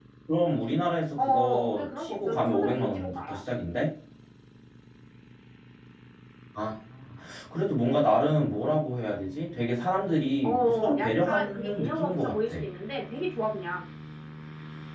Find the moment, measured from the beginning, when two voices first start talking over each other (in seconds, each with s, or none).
1.2 s